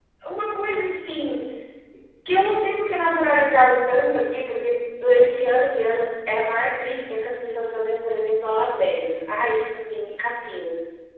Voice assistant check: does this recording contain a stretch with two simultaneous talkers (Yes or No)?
No